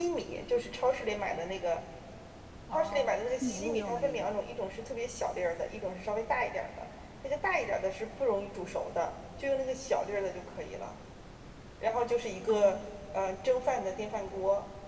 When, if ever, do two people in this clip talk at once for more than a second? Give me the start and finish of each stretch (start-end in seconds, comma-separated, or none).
2.7-4.3